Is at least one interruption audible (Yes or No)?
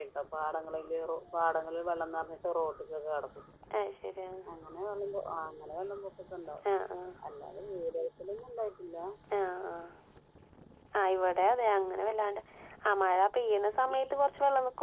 No